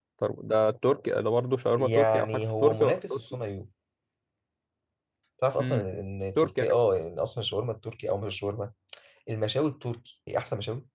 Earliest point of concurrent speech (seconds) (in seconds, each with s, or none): 1.8 s